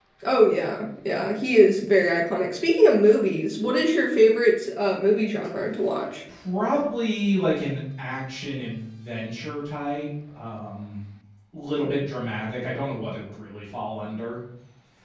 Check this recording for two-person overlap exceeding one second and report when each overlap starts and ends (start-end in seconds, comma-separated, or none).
none